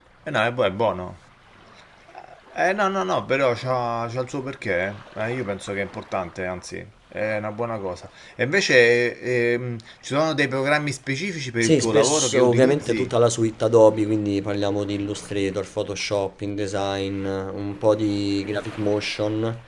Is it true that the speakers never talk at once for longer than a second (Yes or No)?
No